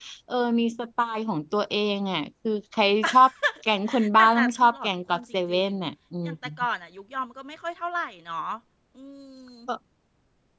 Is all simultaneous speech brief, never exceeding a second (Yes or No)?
No